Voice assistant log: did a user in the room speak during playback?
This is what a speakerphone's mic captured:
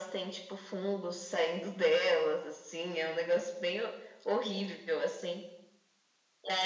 No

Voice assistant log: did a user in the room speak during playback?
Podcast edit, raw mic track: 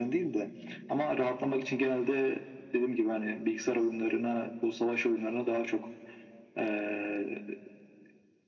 No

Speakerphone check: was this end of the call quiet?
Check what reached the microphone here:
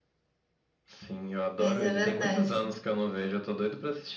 No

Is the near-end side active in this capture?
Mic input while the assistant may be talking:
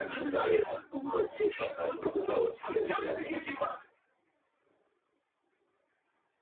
No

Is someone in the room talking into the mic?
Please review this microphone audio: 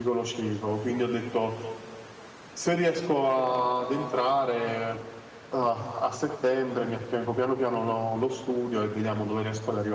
Yes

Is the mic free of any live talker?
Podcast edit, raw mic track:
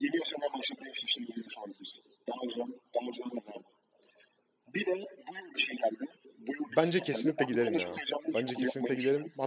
No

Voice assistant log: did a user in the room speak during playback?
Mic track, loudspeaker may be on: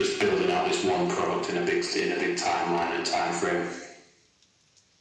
No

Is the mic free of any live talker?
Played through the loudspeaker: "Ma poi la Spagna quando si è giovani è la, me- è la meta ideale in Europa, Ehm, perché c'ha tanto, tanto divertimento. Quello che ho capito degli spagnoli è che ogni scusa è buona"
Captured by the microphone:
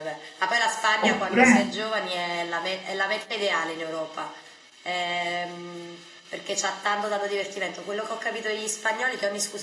No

